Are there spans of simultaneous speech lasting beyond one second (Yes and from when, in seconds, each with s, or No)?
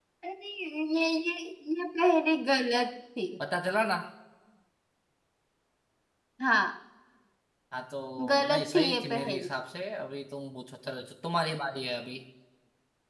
Yes, from 8.3 s